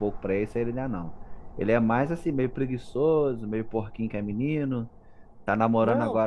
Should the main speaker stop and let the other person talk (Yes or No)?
No